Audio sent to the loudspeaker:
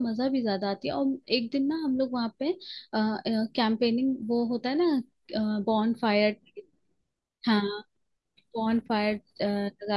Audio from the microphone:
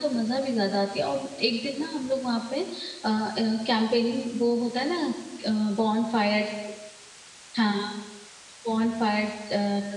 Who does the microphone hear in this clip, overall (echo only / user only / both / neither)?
echo only